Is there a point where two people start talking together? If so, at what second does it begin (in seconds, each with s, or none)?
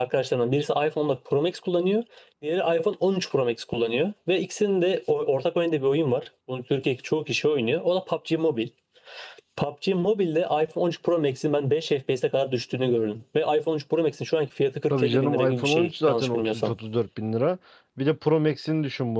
14.9 s